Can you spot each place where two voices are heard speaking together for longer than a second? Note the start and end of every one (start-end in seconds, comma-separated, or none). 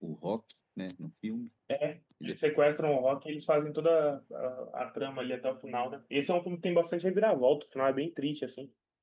none